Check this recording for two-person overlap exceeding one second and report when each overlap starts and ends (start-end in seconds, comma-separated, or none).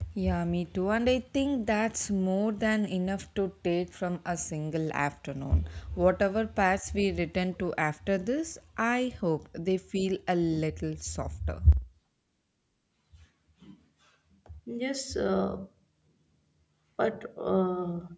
none